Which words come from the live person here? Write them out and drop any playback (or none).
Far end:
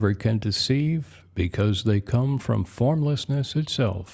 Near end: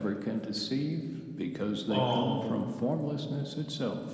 Oh,